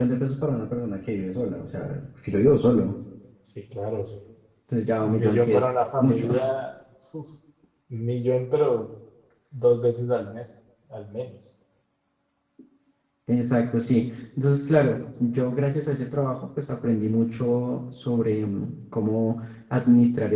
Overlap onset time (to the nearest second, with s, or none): 5 s